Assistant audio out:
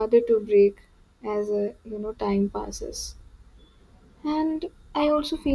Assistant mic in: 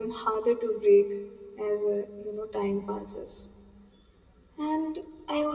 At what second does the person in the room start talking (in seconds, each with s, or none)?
none